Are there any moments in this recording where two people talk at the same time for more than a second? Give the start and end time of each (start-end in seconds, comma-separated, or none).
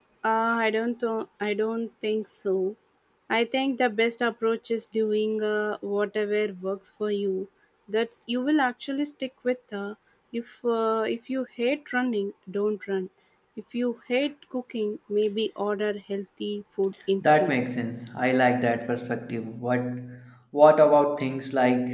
none